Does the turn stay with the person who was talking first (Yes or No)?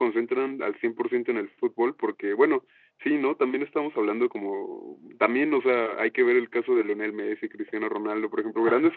Yes